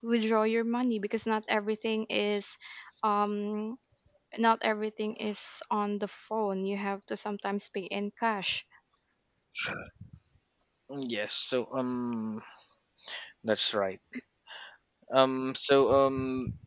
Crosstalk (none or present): none